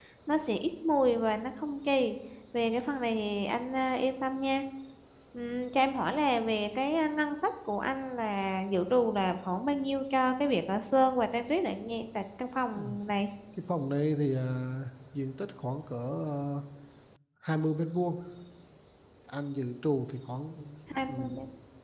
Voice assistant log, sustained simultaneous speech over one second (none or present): none